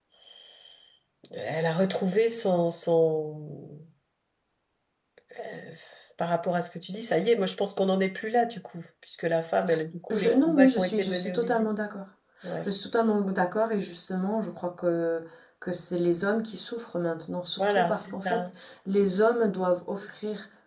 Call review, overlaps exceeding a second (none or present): present